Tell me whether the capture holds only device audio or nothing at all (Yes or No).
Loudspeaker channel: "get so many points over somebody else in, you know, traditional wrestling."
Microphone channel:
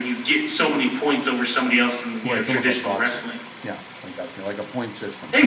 No